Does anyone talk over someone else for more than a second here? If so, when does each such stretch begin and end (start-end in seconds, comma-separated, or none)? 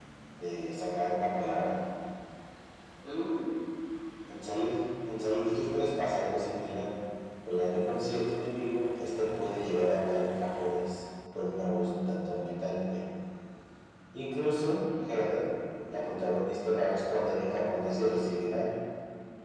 none